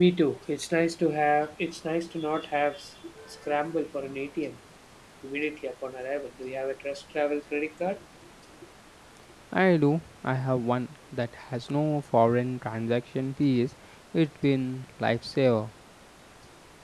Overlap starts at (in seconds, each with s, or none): none